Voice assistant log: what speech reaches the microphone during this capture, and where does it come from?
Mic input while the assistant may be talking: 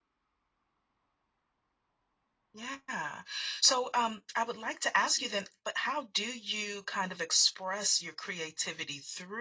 user only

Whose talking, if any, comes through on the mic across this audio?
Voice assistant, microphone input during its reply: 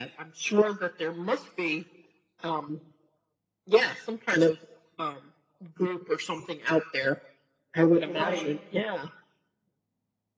both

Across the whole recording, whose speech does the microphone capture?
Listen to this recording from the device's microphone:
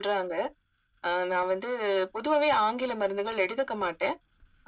echo only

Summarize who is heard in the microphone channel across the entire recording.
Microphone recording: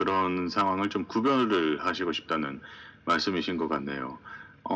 echo only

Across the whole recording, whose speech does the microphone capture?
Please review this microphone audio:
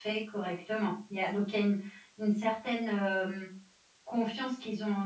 user only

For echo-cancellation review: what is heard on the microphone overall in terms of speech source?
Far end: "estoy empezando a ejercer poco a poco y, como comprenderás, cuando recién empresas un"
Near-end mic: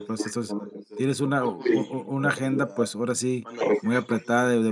both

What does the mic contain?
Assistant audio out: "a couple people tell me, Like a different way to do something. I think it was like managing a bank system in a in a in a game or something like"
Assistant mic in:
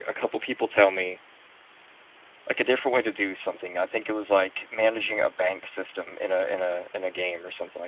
echo only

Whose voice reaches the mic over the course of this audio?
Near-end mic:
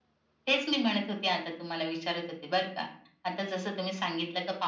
echo only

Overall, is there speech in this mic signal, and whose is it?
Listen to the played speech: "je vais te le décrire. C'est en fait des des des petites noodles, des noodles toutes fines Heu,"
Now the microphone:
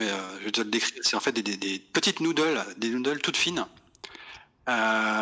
echo only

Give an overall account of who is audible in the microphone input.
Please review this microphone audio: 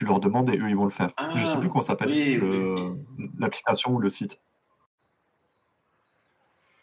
both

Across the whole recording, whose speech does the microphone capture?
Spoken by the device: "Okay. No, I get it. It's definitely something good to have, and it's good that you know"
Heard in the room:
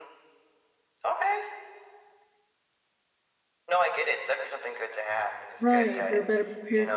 both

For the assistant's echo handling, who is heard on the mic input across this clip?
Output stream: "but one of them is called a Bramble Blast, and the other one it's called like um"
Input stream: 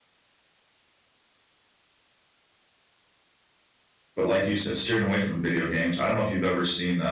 user only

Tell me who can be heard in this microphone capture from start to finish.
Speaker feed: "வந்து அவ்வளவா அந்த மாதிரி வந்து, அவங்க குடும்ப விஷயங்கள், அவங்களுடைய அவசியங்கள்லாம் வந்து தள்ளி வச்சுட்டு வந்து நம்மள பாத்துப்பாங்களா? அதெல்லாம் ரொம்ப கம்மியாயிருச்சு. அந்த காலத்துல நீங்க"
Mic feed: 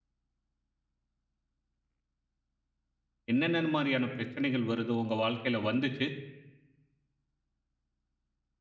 user only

